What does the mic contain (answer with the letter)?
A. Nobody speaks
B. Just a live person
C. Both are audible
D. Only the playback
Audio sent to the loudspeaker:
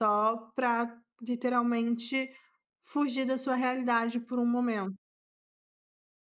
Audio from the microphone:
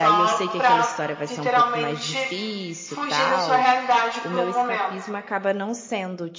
C